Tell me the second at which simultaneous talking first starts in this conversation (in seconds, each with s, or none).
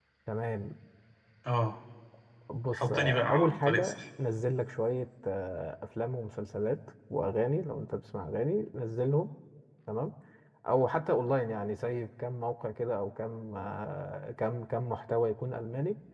2.7 s